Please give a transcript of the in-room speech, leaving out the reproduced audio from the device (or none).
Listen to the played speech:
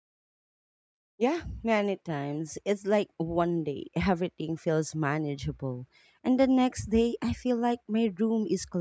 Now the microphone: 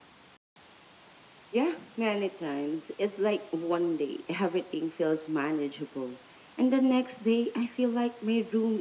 none